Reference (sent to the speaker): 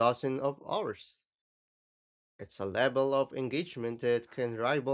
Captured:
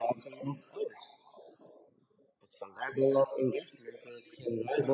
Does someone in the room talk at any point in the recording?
No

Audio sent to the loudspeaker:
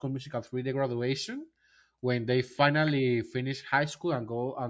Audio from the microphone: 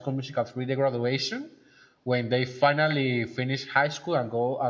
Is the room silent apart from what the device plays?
Yes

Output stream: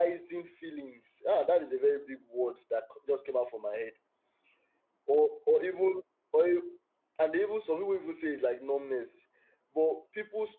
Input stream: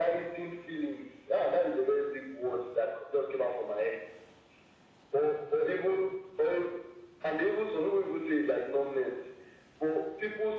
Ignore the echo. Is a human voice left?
No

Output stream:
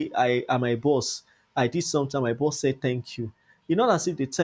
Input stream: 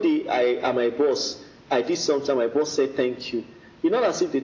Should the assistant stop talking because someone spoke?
No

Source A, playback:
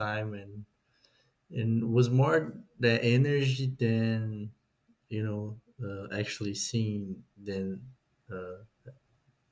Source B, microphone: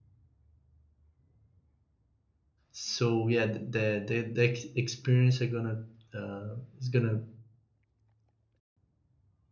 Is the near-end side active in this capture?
Yes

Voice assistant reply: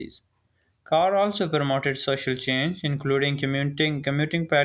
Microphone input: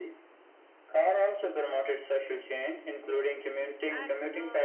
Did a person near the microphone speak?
Yes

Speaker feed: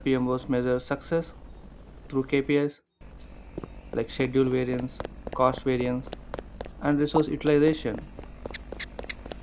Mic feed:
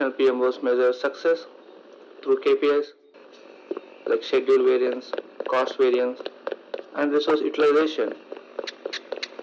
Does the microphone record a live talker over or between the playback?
No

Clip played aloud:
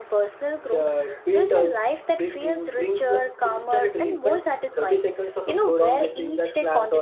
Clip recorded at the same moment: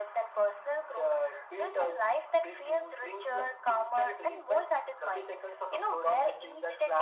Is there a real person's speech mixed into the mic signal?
No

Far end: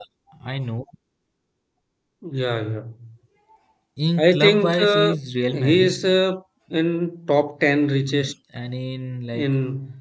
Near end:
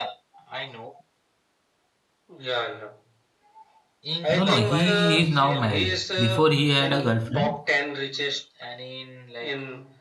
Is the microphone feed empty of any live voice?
No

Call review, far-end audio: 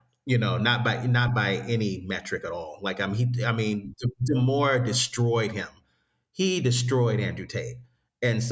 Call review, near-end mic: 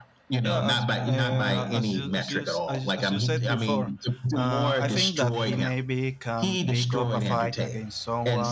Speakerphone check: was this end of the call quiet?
No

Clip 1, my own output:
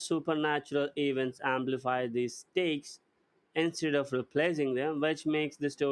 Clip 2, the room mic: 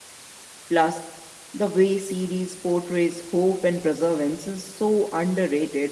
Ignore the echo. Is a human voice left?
Yes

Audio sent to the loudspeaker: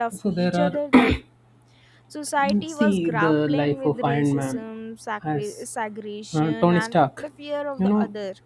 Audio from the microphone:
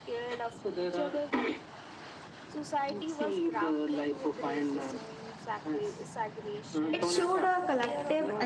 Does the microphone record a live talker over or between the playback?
Yes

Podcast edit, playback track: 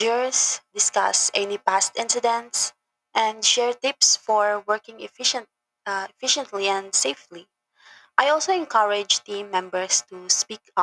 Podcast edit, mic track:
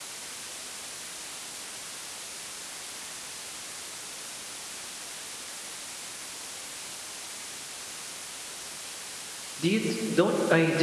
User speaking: Yes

